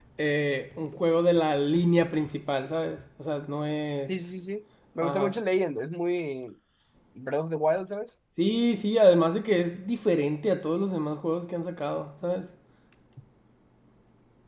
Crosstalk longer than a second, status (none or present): none